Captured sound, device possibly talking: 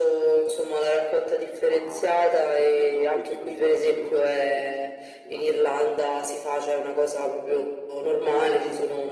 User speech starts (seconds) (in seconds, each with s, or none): none